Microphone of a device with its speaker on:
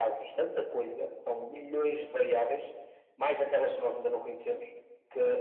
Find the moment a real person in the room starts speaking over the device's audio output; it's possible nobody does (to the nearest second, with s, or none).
none